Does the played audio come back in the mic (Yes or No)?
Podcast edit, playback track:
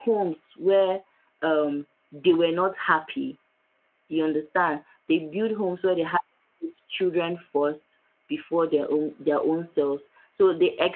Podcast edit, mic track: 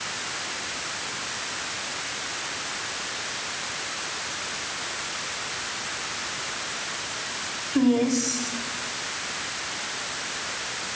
No